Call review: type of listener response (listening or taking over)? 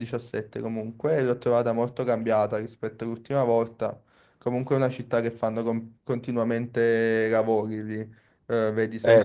listening